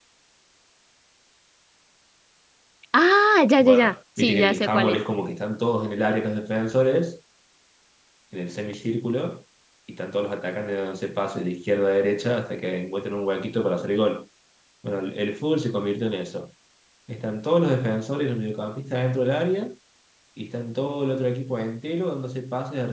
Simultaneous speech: Yes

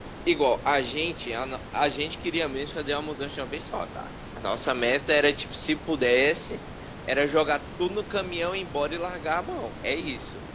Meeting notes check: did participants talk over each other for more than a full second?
No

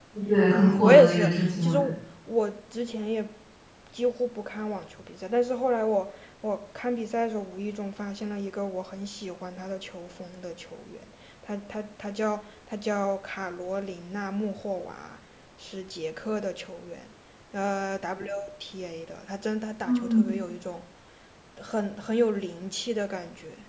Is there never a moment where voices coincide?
No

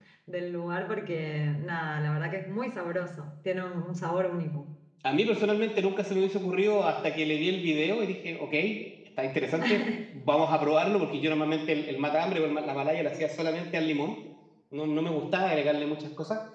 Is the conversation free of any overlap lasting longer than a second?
Yes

